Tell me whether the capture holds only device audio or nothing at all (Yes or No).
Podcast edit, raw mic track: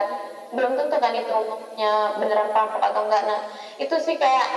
Yes